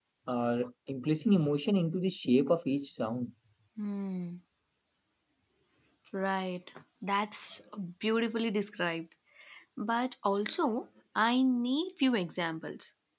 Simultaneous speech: No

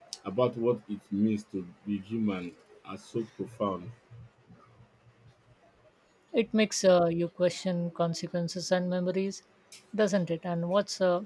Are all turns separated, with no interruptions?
Yes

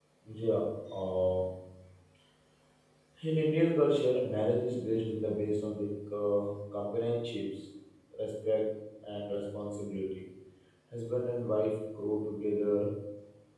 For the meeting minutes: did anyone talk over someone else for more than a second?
No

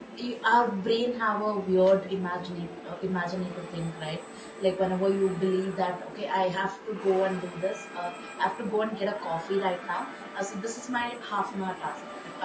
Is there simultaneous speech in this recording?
No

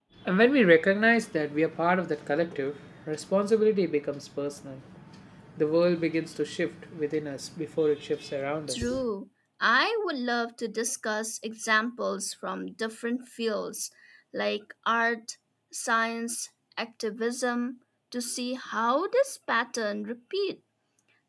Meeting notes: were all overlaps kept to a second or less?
Yes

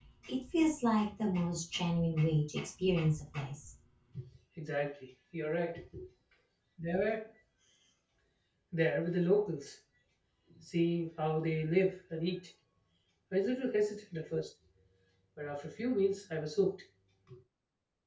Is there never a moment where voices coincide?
Yes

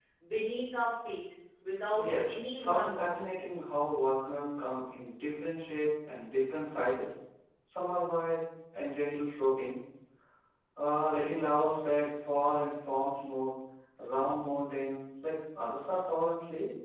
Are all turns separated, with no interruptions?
No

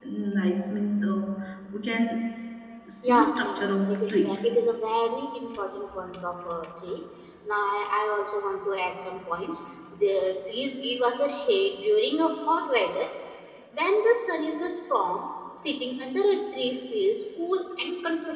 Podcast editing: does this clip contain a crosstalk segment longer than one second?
Yes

